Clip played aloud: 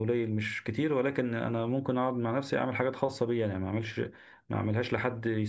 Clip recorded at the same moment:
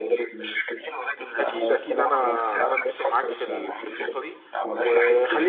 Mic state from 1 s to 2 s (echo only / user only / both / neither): both